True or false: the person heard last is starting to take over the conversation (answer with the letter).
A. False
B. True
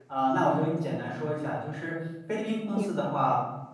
A